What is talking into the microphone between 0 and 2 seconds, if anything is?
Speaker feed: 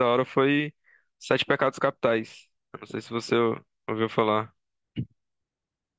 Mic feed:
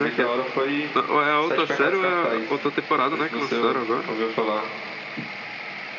both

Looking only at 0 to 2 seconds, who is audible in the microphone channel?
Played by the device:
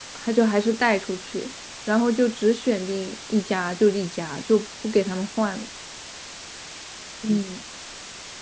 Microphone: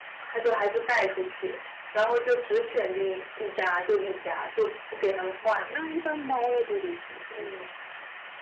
echo only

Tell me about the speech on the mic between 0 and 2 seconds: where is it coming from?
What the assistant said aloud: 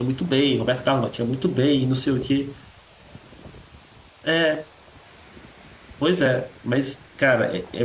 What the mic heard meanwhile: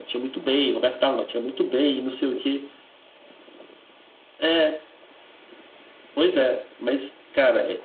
echo only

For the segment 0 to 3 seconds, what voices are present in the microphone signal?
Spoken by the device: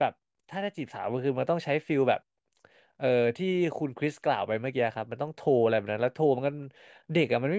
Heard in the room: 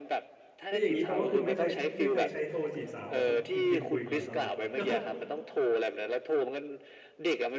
both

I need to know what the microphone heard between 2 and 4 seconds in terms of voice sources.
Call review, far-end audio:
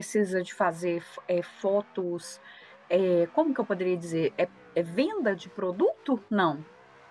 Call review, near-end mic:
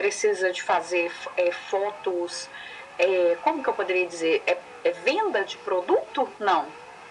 echo only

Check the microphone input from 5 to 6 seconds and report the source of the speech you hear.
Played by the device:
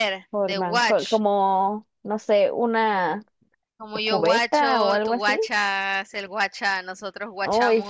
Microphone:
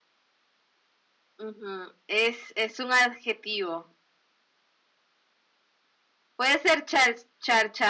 neither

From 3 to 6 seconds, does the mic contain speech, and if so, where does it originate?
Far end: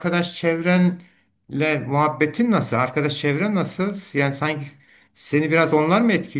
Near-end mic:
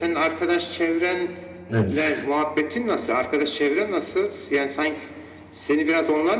echo only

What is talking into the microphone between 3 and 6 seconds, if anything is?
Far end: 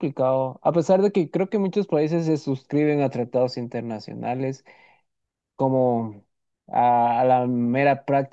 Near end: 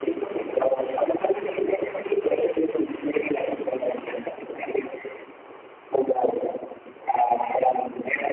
echo only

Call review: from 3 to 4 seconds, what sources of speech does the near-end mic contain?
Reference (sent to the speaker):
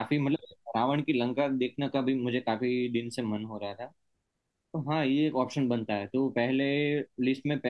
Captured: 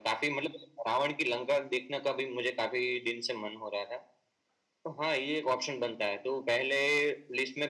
echo only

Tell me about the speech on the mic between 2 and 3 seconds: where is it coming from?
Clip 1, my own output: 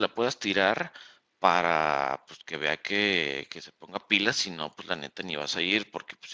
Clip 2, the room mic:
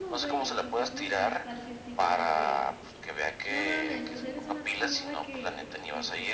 both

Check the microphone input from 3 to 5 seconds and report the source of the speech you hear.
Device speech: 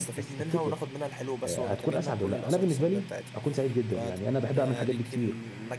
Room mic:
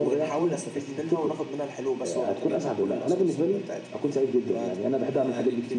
echo only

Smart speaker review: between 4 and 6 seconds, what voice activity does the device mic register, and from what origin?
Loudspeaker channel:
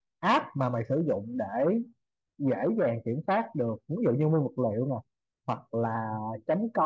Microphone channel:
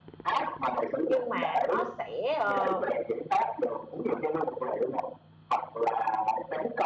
echo only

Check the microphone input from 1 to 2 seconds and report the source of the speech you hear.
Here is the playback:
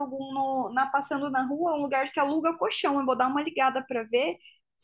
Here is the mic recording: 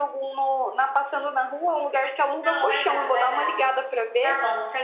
echo only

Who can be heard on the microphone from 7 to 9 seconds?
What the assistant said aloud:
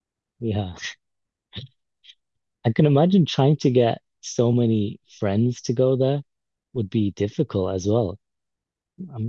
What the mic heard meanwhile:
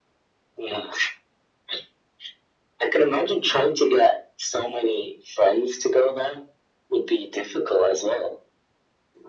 echo only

